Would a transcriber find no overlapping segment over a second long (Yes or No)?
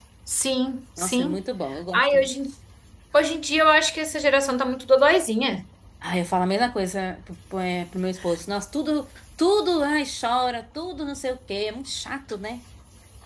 Yes